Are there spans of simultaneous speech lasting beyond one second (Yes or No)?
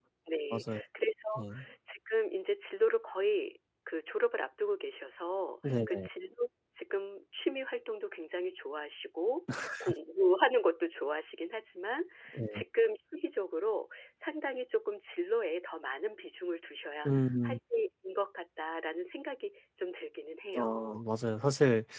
No